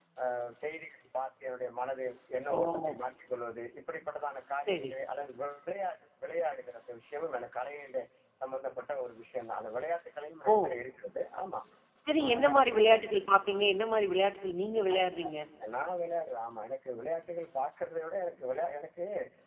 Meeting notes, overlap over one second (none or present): none